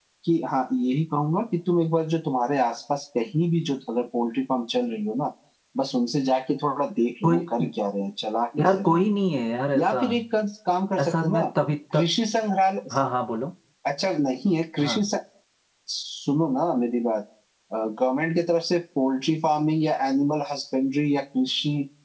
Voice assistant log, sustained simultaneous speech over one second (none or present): none